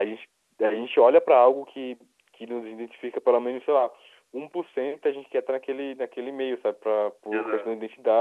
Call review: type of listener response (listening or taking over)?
listening